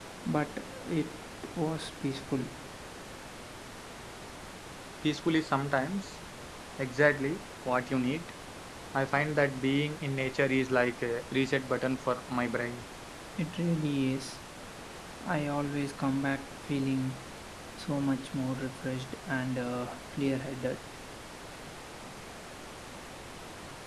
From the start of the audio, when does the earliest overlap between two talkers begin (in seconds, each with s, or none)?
none